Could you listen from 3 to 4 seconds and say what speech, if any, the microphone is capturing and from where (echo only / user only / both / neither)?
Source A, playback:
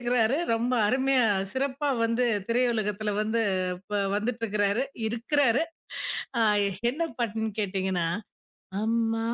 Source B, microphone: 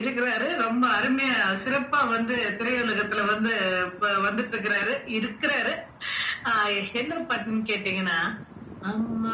echo only